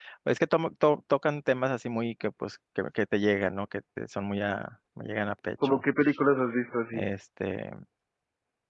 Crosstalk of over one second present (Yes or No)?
No